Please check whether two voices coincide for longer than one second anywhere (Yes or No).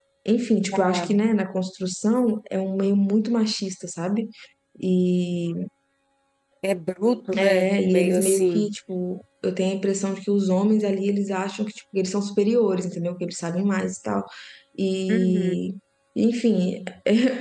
Yes